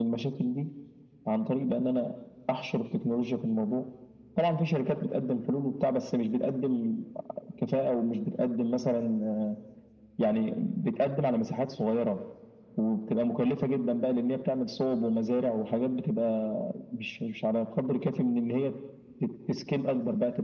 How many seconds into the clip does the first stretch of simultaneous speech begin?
none

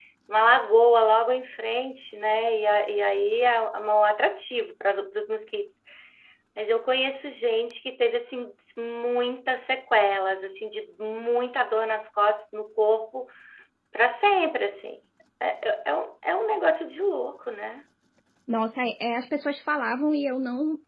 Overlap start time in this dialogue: none

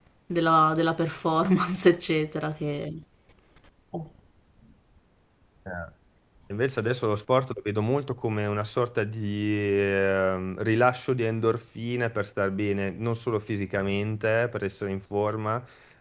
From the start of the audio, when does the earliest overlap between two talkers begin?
none

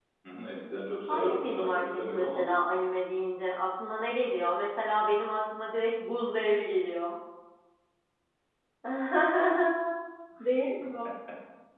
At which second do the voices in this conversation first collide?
1 s

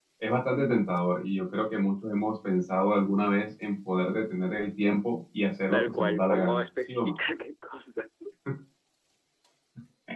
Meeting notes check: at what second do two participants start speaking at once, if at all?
6 s

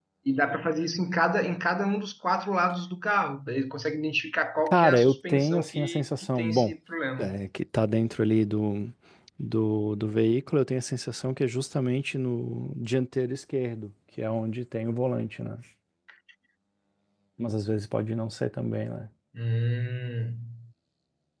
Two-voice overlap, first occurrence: 5 s

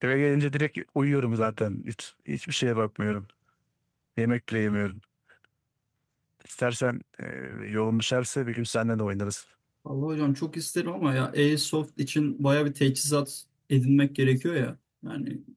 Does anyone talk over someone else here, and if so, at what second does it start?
none

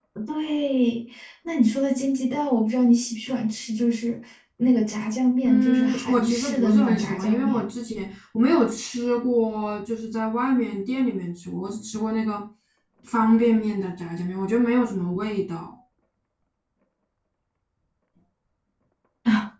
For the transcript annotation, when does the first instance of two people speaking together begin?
5 s

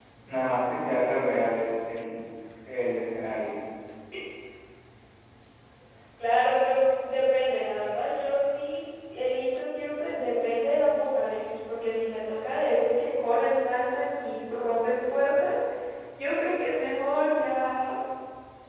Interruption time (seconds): none

